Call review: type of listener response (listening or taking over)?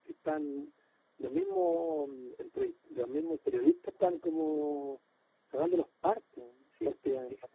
taking over